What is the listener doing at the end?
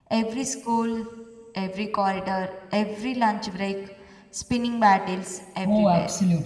taking over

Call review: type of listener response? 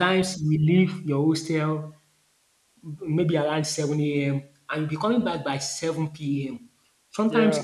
listening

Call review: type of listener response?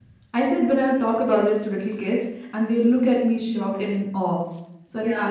listening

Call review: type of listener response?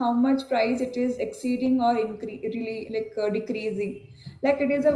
listening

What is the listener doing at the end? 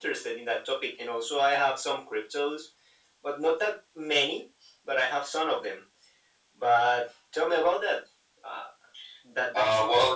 taking over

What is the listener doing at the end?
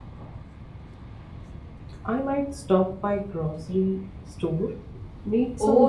taking over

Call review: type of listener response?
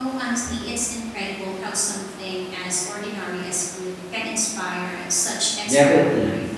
taking over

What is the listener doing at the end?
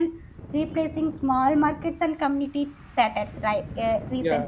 listening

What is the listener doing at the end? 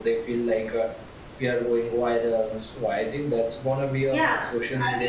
taking over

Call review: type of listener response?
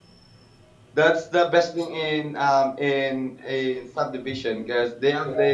listening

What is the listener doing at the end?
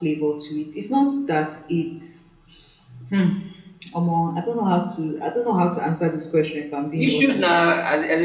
taking over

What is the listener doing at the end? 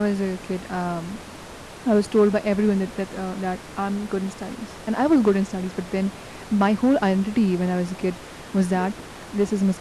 listening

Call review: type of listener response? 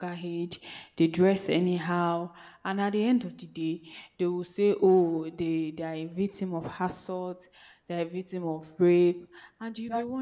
listening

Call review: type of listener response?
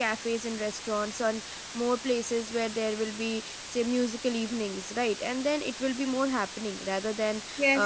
taking over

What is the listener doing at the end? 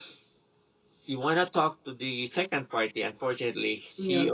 listening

